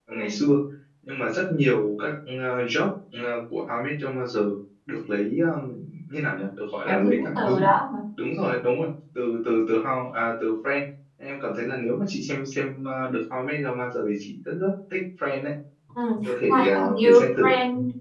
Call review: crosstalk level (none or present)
present